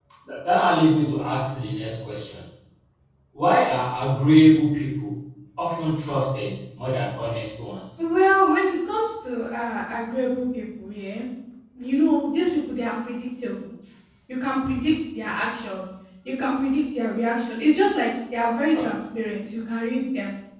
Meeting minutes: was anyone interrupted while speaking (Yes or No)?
No